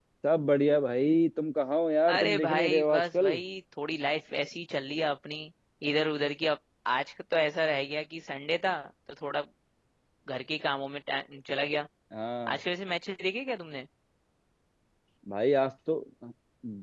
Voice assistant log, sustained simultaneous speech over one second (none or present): present